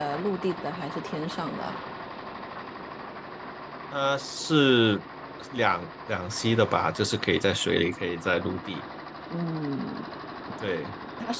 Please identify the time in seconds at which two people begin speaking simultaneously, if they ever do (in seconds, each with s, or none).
none